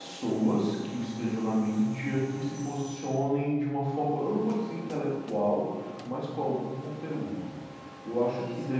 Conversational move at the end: listening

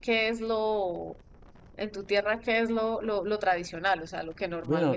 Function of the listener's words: taking over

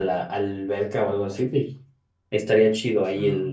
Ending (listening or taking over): listening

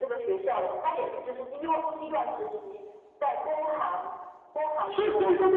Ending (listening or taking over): taking over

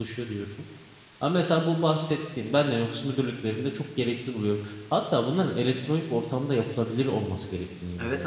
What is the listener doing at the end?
taking over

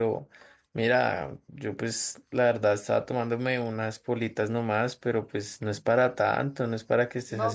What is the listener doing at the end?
taking over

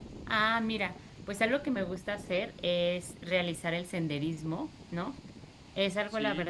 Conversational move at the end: listening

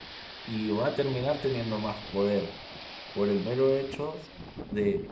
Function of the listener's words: listening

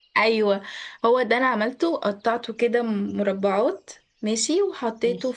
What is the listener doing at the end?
listening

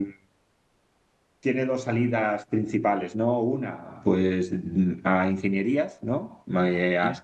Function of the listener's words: listening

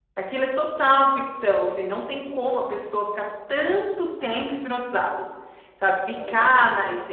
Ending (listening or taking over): listening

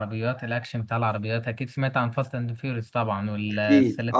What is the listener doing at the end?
taking over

